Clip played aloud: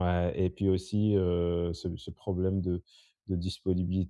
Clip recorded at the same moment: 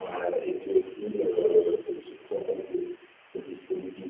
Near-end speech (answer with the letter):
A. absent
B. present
A